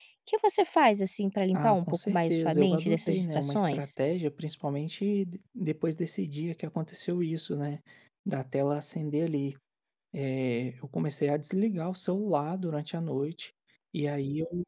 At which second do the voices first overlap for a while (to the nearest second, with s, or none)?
2 s